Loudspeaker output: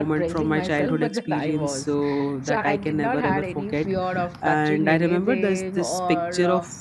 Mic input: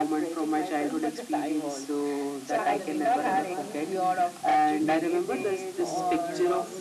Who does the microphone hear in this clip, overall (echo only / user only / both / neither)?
both